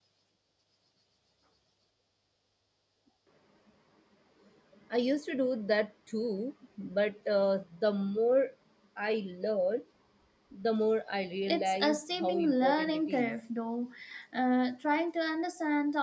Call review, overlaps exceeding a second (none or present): present